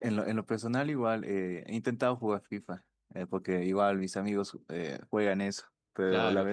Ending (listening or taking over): listening